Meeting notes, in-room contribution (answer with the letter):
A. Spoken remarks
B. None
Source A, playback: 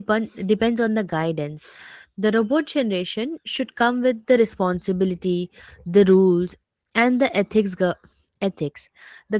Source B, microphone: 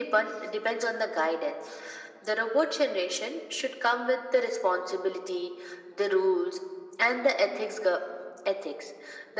B